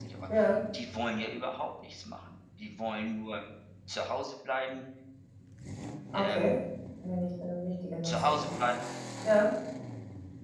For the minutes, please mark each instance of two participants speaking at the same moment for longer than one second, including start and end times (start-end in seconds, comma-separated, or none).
none